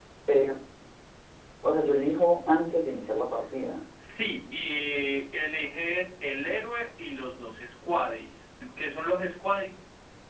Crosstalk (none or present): none